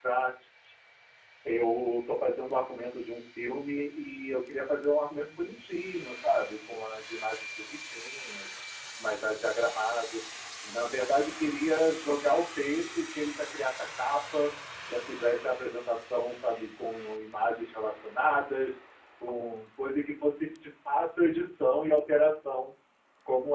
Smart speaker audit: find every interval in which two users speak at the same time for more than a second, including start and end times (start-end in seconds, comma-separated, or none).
none